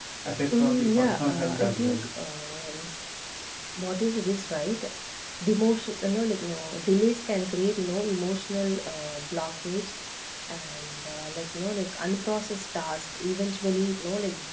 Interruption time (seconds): 0.6 s

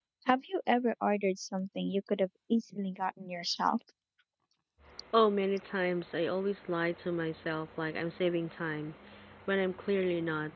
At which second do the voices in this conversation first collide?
none

